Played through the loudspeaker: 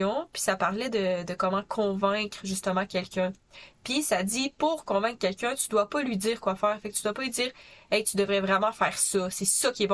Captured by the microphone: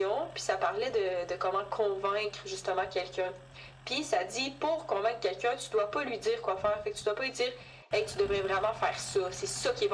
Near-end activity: none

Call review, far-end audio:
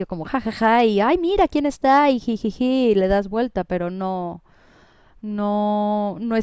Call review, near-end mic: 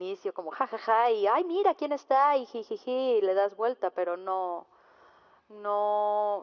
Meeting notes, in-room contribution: none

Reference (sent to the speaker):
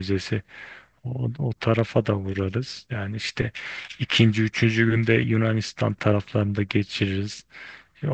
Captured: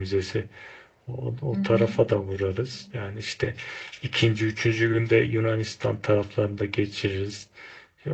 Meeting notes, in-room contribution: present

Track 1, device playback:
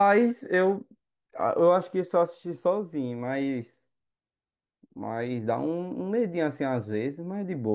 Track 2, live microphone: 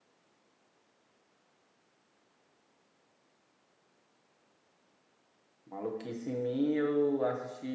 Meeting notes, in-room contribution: present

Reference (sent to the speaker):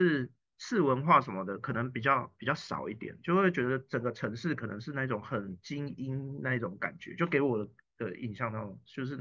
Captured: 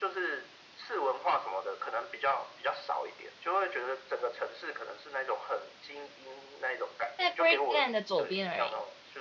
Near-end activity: present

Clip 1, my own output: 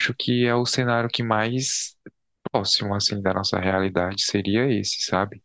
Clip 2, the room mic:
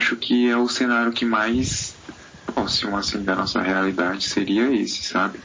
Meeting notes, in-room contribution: none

